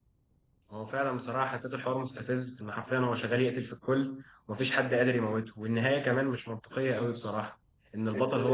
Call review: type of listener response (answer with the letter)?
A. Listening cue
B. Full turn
A